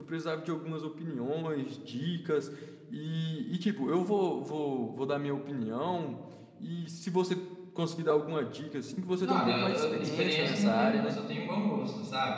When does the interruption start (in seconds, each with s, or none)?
9.2 s